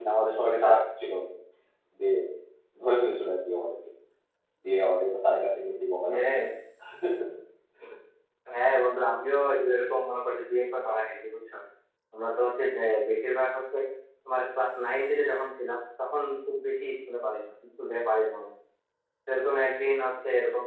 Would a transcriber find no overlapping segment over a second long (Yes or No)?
Yes